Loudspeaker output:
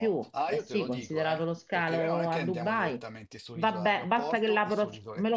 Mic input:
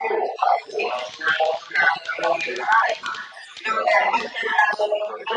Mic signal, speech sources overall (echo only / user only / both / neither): echo only